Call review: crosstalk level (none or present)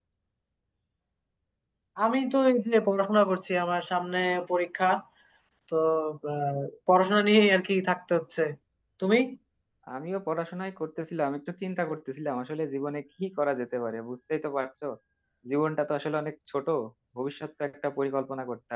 none